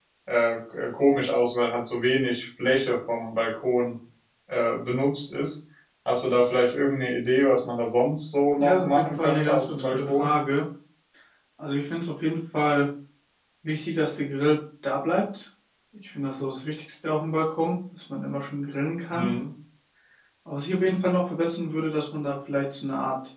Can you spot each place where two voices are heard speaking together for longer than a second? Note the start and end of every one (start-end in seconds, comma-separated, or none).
8.6-10.3